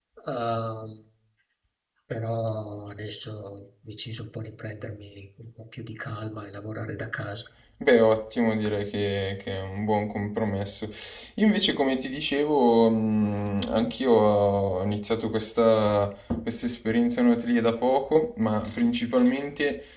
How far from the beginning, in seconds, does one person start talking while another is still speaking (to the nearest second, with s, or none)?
none